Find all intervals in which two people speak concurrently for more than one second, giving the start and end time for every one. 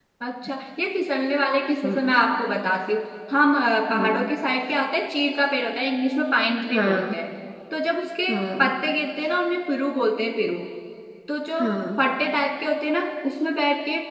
none

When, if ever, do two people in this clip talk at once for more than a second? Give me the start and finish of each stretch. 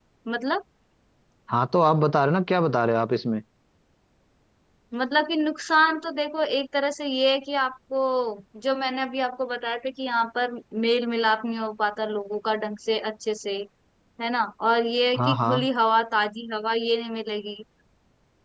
none

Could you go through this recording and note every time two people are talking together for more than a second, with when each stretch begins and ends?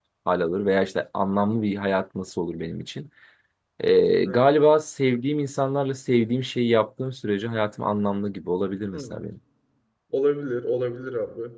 none

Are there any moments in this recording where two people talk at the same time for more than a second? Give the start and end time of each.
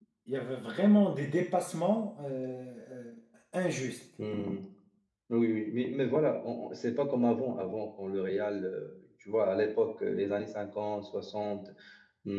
none

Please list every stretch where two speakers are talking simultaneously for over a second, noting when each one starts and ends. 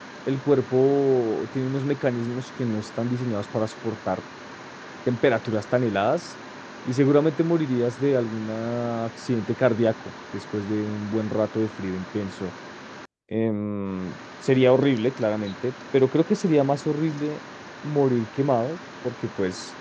none

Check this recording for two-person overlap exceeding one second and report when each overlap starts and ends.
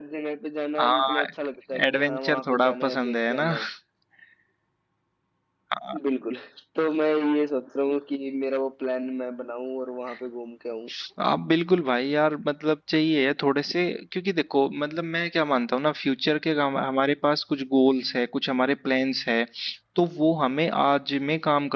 1.9-3.5

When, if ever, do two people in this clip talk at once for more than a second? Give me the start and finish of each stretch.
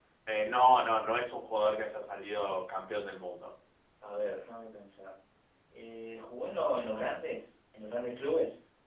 none

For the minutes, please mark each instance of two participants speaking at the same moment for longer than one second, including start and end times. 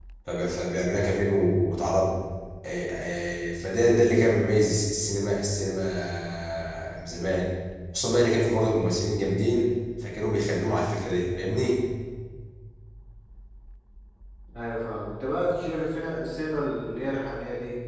none

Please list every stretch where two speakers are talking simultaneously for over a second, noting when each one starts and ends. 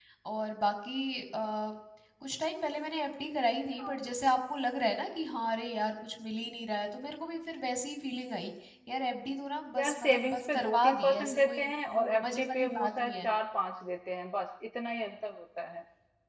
9.8-13.3

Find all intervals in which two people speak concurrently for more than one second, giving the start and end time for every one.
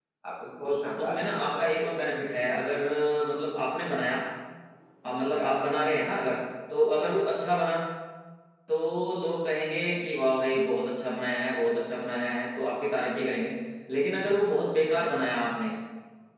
0.7-1.9

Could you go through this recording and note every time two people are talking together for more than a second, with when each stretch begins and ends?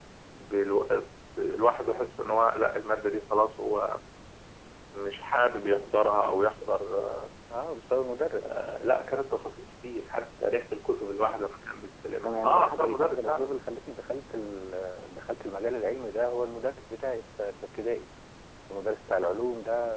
12.2-13.6

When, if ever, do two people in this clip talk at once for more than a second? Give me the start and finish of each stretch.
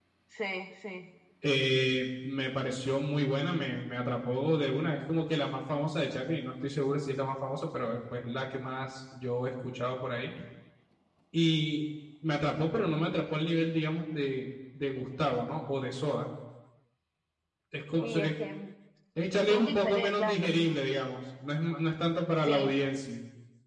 19.5-20.8

